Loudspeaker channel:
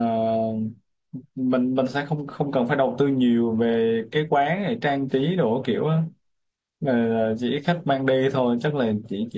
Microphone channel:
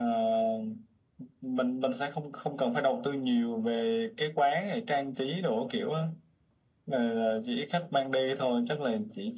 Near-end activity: none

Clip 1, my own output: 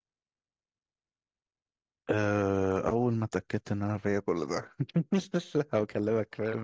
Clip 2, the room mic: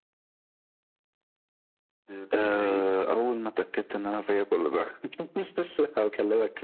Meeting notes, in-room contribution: present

